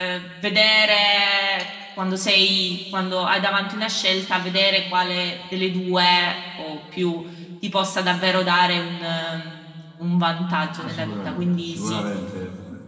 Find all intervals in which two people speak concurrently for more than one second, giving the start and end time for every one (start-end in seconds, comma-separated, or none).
10.8-12.0